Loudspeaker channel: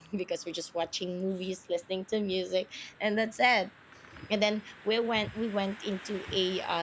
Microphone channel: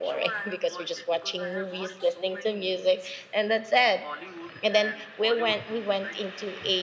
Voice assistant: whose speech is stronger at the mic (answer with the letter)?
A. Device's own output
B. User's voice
A